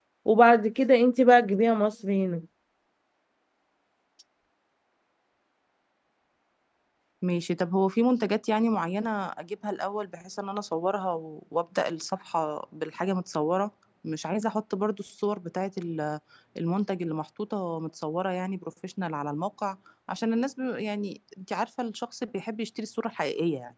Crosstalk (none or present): none